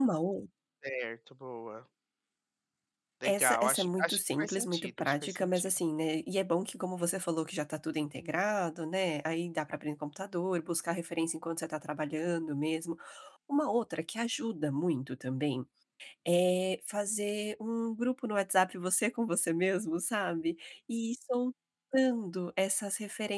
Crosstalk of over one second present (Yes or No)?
Yes